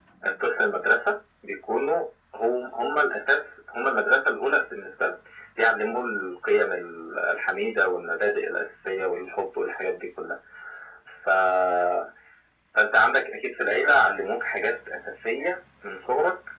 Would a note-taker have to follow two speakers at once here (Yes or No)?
No